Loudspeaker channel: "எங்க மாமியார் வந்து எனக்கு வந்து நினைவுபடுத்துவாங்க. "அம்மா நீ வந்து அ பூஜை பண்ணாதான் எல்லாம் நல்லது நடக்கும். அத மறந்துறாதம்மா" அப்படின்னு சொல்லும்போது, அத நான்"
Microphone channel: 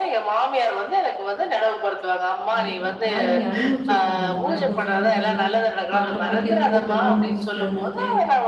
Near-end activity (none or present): present